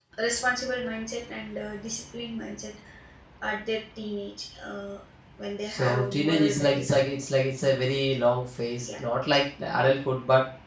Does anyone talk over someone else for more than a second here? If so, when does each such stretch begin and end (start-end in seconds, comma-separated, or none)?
5.7-7.0